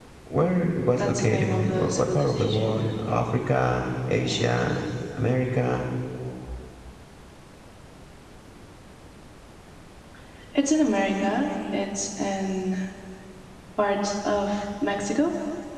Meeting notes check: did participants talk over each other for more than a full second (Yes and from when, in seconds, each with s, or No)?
Yes, from 1.0 s